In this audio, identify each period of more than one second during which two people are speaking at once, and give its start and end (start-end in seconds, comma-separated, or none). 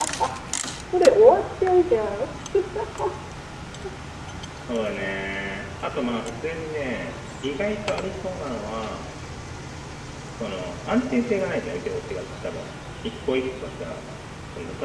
none